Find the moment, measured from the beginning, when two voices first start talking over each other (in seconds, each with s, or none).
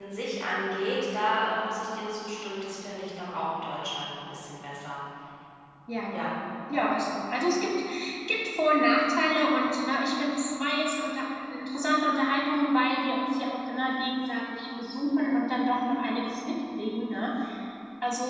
none